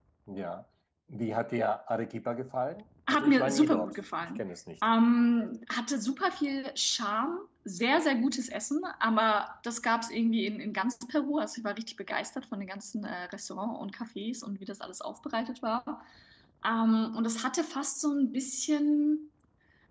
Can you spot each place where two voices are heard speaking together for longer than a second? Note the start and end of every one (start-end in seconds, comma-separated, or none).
3.1-4.4